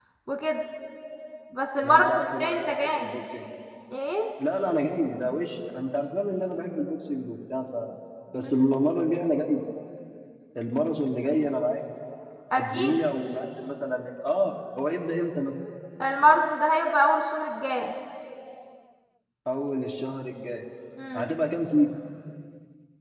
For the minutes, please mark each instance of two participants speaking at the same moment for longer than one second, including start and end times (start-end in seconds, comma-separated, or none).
1.8-3.1